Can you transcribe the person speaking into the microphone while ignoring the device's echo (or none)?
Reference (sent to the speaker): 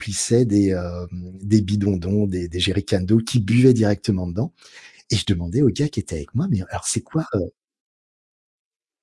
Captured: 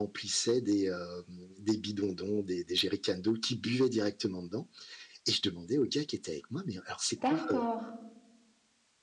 D'accord.